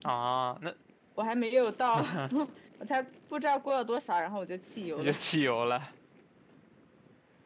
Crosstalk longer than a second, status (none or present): none